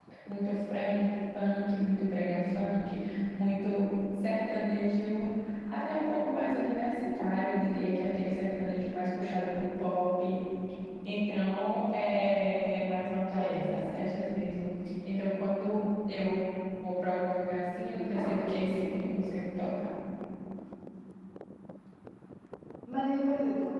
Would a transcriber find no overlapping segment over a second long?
Yes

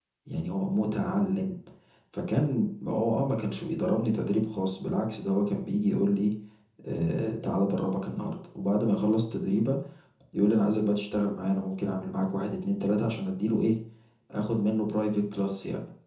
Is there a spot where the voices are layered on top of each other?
No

